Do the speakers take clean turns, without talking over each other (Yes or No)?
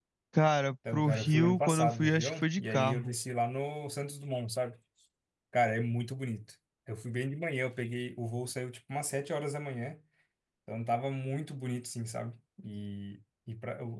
No